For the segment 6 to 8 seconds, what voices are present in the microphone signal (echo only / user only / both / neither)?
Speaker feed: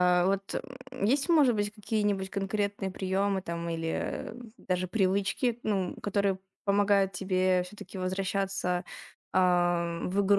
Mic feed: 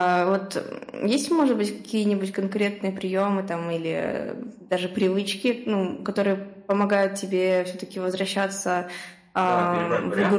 echo only